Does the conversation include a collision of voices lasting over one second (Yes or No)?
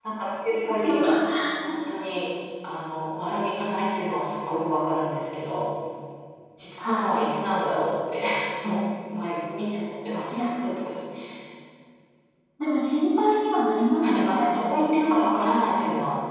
No